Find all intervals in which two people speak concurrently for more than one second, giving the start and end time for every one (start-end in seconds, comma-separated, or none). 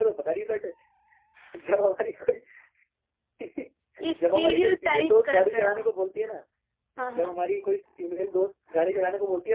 4.2-5.8